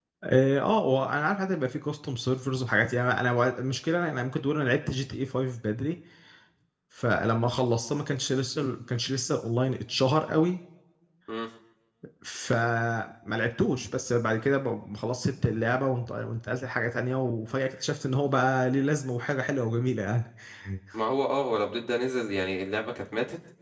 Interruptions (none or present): none